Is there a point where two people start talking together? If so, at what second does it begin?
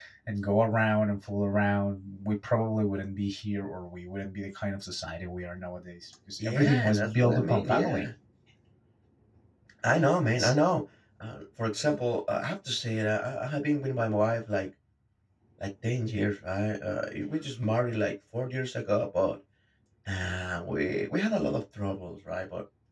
6.4 s

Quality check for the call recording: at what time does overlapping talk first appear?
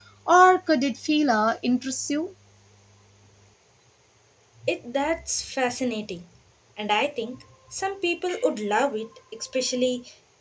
none

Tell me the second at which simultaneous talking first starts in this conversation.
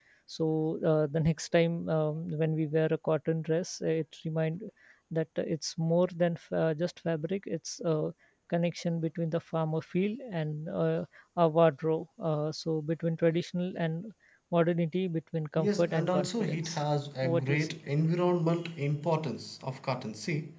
15.6 s

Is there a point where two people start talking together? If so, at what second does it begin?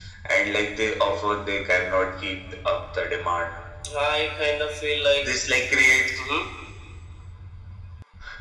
none

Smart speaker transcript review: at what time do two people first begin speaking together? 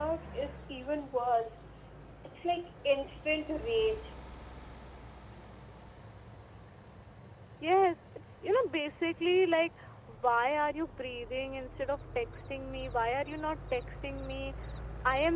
none

